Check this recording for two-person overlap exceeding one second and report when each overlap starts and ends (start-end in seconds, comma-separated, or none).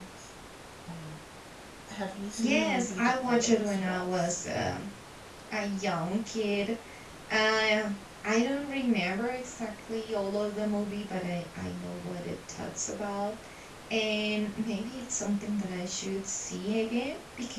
2.4-4.4